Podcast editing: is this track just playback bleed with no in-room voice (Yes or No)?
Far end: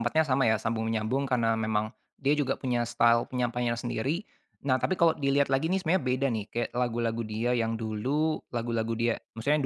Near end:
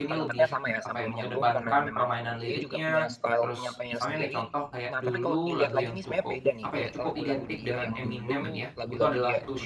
No